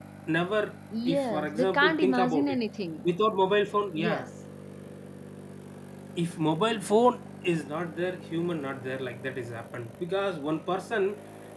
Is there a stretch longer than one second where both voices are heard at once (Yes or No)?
Yes